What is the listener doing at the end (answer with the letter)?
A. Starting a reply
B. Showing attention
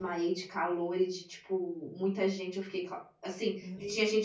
B